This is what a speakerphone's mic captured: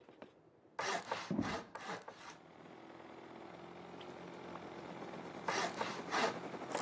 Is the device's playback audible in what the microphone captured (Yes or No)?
No